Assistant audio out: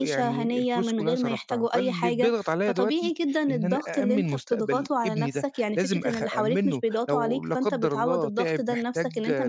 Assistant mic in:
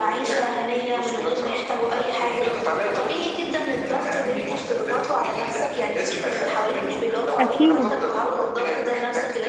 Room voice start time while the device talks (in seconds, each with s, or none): 7.4 s